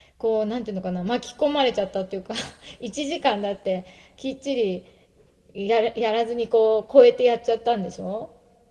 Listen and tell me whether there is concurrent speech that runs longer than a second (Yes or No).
No